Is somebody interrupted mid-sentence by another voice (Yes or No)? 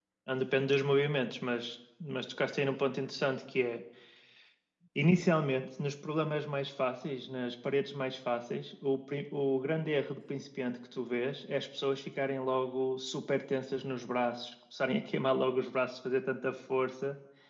No